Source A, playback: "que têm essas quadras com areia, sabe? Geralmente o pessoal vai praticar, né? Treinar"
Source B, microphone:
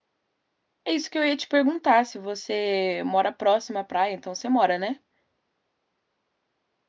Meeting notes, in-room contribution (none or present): present